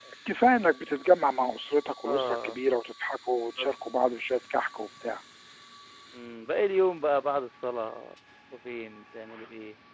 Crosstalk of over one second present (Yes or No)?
No